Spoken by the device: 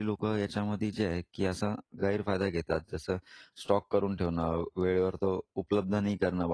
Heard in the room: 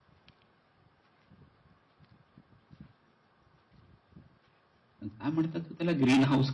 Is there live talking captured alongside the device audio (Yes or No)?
Yes